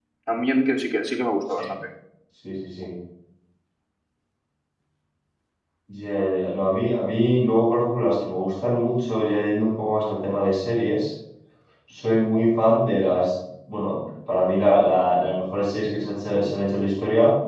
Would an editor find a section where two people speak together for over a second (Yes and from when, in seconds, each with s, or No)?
No